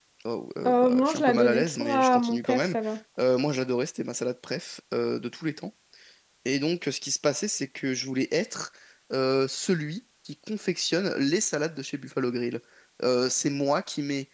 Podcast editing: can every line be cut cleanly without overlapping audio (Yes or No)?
No